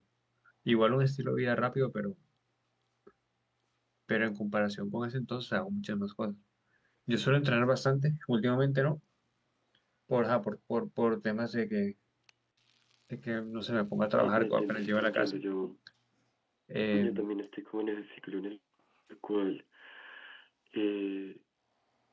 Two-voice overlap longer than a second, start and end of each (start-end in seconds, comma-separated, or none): 14.2-15.4